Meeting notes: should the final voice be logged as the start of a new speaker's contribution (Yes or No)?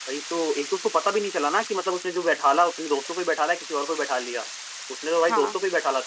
No